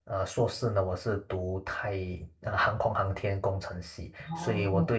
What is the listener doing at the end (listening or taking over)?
listening